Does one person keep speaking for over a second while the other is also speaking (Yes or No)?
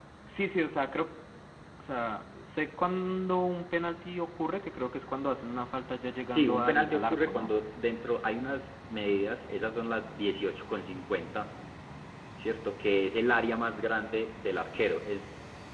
Yes